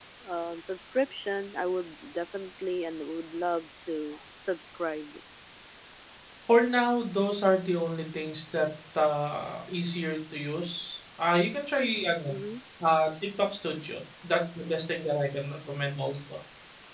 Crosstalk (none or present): none